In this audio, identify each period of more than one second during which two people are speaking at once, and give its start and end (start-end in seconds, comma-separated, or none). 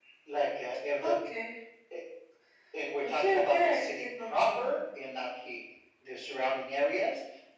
3.0-4.8